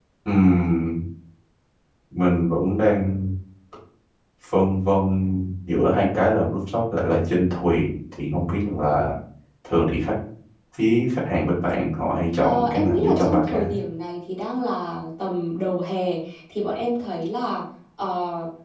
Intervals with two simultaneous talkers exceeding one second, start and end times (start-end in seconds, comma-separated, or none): 12.4-13.7